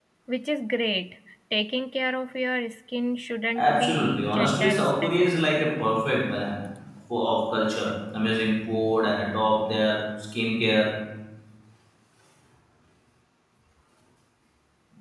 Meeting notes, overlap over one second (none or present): present